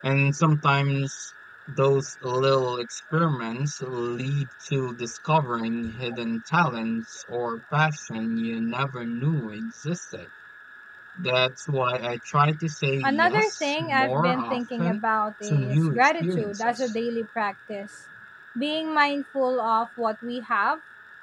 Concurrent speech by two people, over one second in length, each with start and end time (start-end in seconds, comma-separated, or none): 13.0-15.0, 15.4-16.9